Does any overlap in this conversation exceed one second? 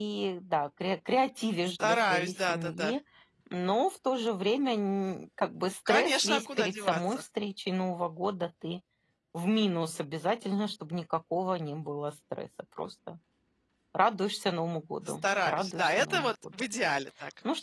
Yes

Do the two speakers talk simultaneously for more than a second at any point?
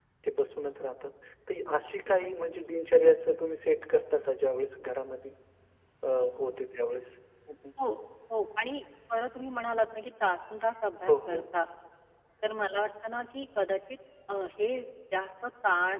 No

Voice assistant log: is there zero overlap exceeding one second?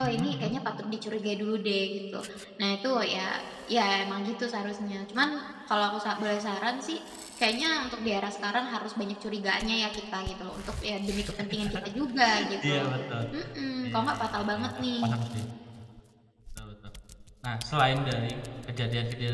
No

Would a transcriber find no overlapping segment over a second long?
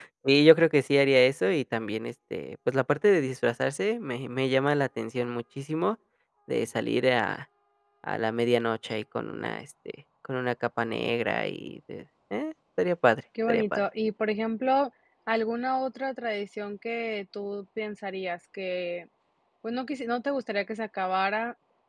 Yes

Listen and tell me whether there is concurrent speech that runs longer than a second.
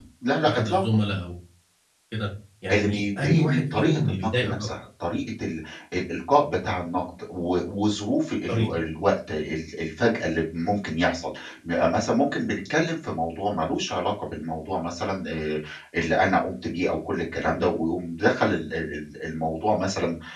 Yes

